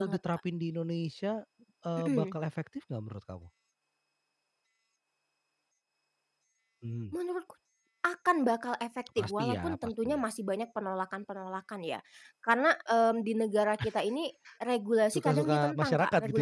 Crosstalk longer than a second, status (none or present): present